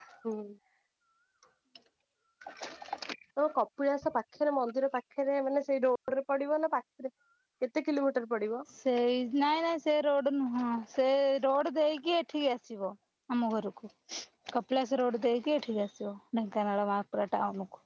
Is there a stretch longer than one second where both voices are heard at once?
No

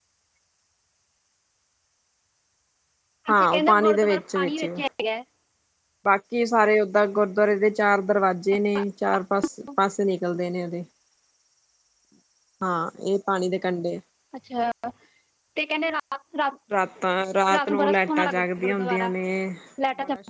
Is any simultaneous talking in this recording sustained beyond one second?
Yes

